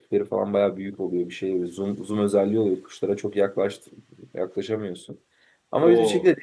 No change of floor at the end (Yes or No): Yes